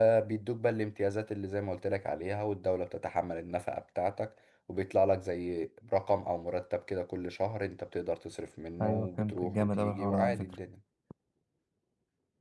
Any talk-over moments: Yes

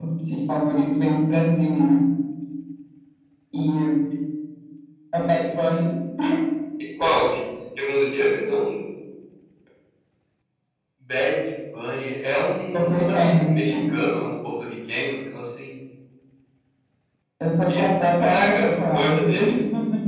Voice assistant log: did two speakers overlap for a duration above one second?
Yes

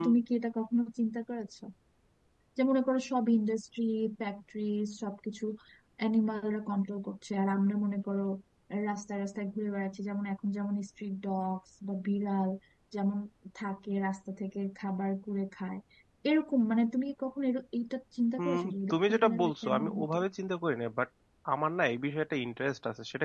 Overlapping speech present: Yes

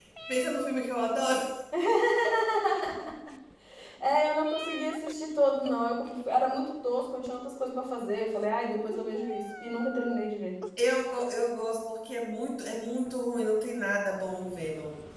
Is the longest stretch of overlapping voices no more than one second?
Yes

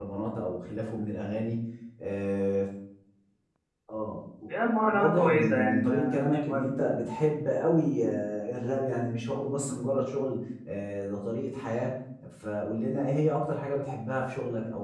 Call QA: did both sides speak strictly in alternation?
No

